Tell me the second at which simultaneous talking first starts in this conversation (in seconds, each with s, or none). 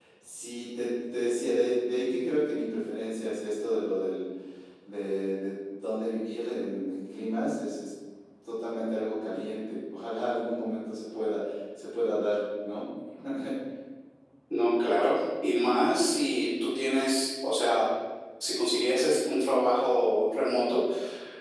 none